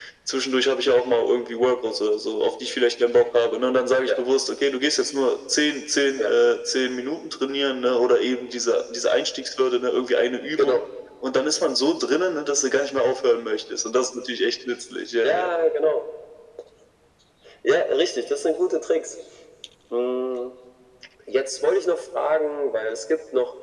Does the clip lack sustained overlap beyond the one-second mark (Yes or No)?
Yes